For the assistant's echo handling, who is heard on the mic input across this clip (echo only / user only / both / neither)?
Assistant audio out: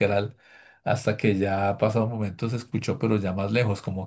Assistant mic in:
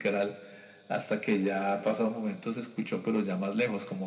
echo only